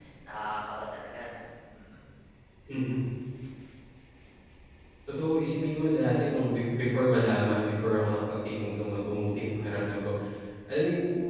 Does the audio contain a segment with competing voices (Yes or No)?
No